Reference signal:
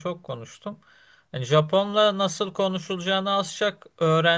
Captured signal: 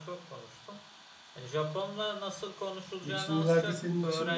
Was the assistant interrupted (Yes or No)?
Yes